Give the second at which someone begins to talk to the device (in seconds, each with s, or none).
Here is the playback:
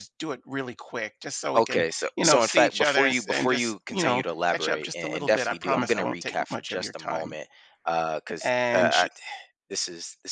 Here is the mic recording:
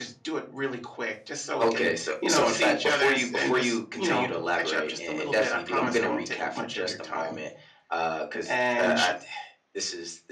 none